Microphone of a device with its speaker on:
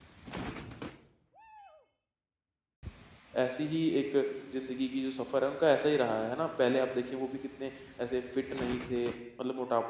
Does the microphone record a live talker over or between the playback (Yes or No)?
Yes